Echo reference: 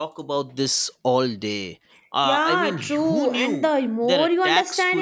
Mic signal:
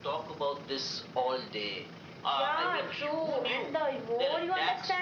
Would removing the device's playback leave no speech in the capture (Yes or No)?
Yes